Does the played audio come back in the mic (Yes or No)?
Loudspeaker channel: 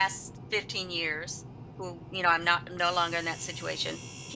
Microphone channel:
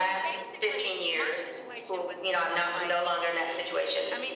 Yes